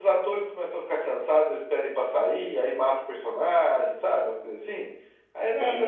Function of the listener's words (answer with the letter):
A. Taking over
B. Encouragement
A